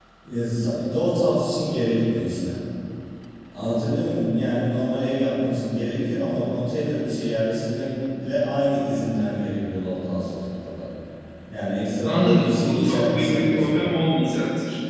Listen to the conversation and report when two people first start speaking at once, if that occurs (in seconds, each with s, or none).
12.0 s